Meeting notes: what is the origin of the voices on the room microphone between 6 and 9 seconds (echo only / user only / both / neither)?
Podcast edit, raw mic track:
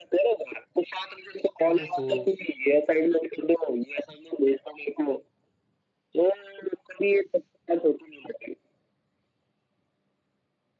echo only